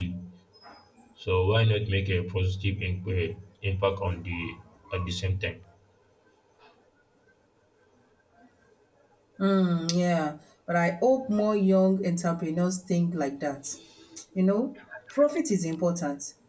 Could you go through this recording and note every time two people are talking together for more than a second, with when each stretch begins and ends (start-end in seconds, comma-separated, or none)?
none